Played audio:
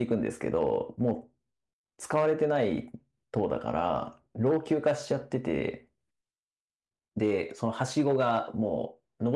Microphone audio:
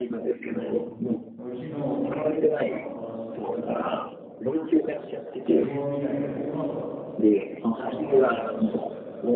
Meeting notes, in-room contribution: present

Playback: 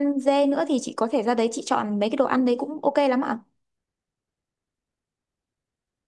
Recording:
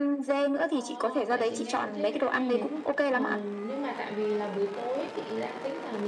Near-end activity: present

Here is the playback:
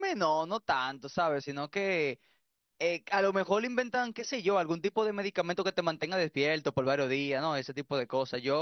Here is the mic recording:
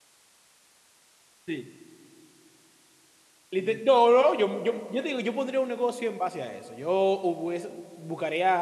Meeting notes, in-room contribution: present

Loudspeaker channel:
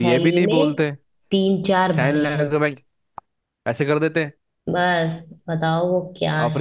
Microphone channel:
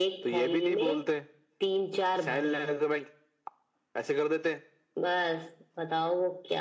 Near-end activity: none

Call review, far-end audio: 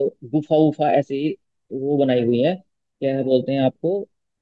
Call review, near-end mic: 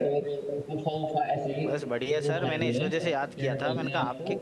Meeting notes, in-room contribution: present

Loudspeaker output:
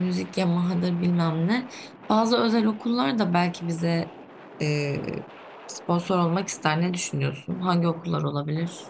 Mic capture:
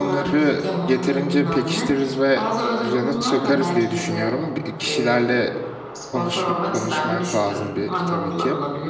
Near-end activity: present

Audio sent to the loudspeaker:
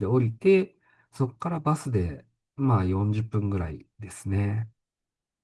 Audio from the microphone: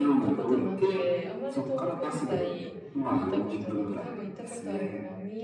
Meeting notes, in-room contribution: present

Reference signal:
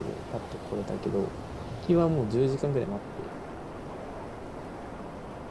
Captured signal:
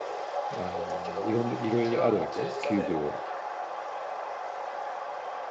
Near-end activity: present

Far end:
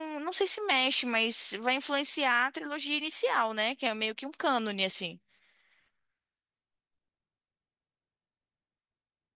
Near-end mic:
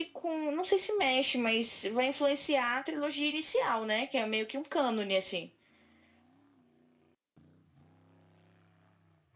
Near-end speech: none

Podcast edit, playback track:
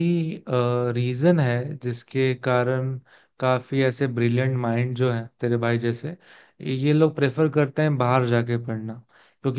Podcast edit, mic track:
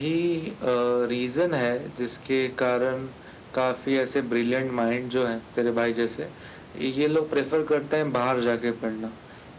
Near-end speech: none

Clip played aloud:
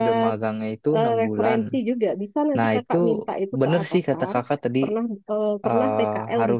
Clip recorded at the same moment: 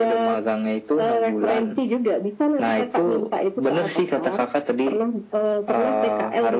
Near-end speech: none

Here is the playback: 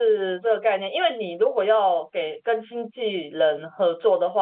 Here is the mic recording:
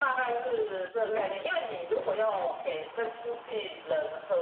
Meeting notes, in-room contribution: present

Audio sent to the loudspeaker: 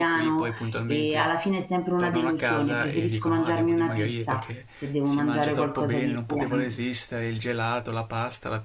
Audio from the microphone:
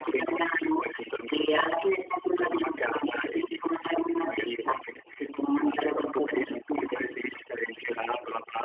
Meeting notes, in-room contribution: none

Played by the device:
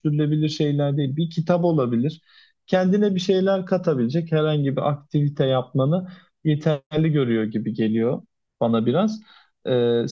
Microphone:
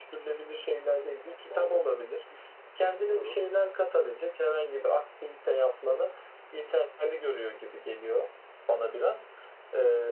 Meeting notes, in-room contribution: present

